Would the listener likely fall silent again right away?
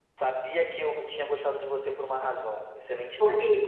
Yes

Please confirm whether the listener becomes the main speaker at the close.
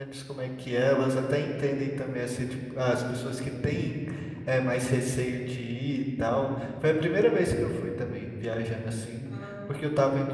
No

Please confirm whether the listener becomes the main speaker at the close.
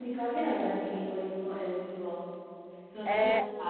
No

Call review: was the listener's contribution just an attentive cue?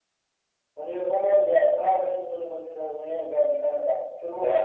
No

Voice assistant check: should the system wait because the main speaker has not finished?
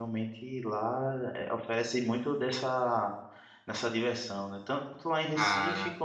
Yes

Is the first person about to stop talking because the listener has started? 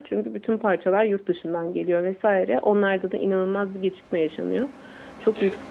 No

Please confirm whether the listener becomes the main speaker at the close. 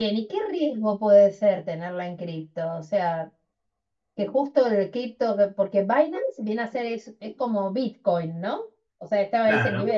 No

